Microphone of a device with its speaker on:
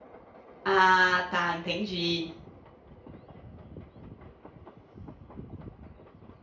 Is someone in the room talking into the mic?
Yes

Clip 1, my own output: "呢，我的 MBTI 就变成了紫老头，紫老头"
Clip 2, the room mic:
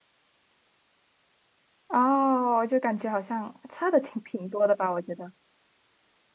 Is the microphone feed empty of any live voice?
No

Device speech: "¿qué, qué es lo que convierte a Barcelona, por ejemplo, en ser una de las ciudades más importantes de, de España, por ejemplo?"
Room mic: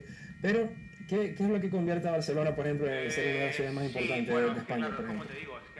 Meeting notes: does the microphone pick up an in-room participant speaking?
Yes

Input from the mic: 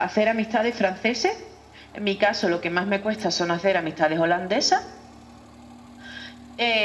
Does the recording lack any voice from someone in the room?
Yes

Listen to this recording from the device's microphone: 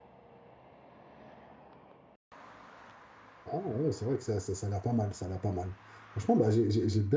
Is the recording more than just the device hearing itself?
Yes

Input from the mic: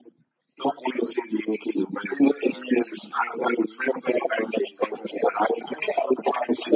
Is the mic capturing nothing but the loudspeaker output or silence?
Yes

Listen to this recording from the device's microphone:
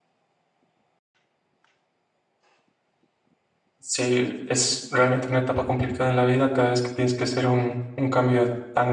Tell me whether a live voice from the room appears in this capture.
Yes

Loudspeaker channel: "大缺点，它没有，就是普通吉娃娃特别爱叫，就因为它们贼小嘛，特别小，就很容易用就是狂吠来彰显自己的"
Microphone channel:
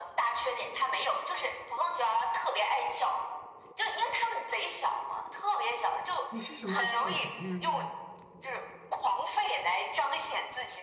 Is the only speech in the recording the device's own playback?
No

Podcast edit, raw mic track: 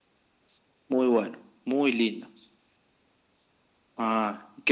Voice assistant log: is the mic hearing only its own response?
Yes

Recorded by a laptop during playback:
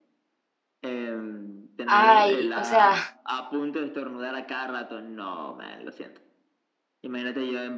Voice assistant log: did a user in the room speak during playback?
Yes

